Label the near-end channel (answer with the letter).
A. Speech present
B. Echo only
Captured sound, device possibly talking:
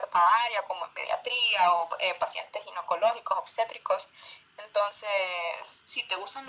B